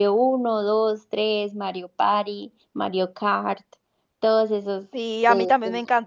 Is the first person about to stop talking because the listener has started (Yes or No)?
Yes